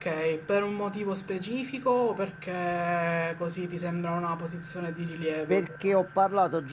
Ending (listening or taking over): taking over